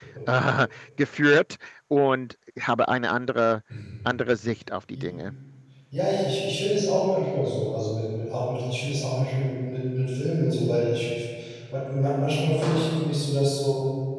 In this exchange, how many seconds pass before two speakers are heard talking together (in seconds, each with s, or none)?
none